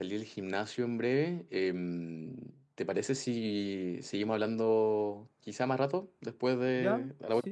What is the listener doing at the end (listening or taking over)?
taking over